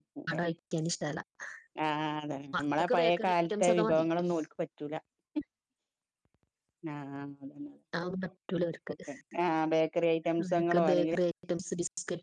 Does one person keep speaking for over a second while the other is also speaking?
Yes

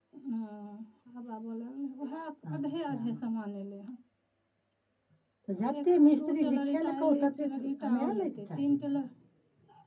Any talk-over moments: Yes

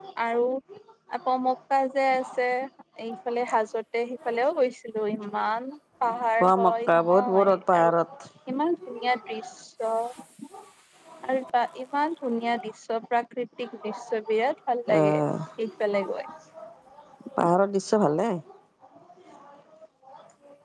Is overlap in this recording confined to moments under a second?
No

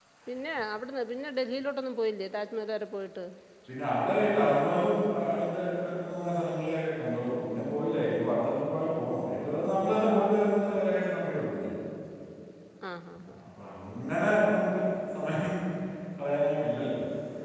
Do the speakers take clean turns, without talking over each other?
Yes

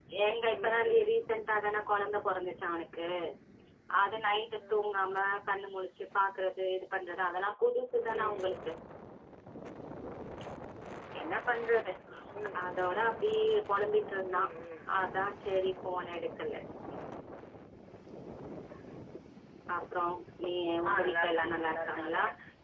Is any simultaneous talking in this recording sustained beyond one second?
Yes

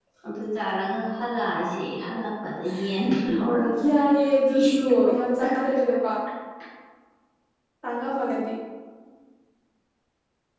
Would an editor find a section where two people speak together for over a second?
Yes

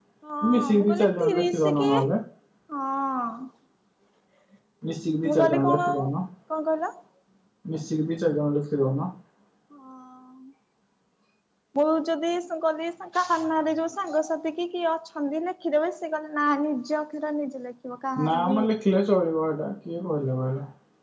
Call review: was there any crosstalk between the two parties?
Yes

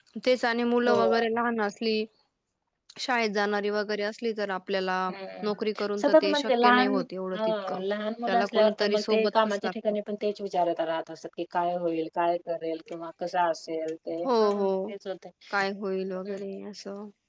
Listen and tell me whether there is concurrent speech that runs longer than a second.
Yes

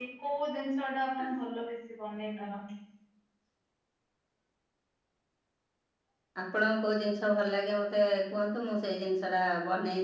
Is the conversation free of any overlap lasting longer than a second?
Yes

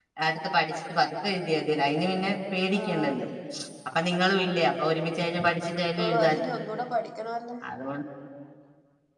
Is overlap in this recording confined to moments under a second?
Yes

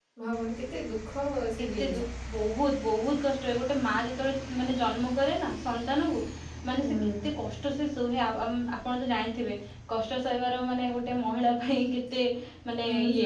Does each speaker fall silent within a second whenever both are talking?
Yes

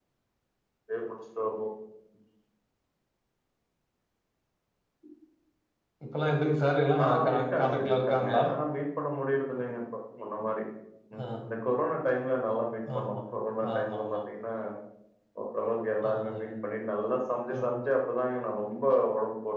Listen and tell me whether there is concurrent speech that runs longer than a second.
Yes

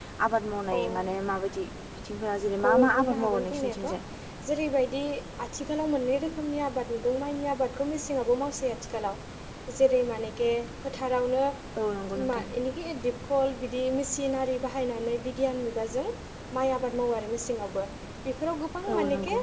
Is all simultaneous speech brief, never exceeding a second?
No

